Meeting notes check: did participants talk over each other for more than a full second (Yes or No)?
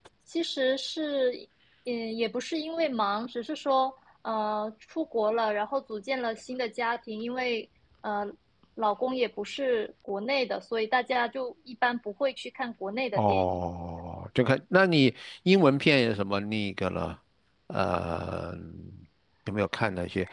No